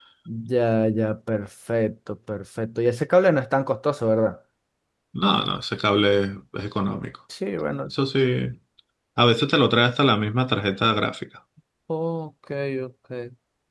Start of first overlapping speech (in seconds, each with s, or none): none